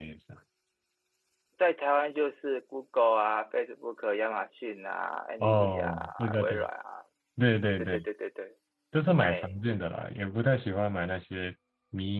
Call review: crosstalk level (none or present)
present